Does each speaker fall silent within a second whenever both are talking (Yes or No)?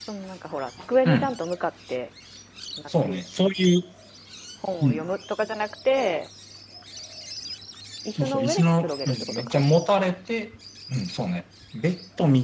No